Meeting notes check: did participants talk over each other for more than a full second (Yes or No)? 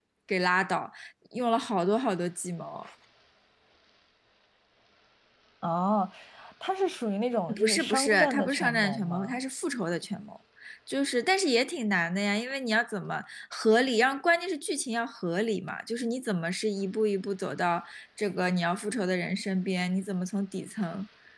Yes